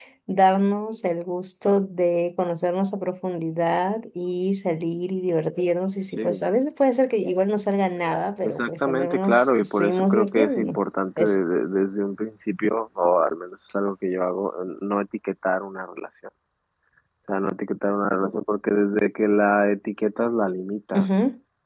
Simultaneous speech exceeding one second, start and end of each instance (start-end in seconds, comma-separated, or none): 8.4-10.8